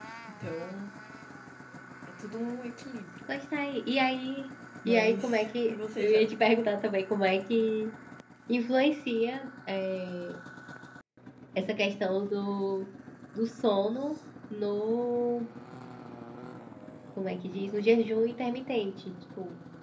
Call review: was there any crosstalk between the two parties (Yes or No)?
Yes